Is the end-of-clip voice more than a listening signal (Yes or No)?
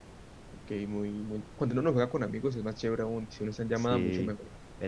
Yes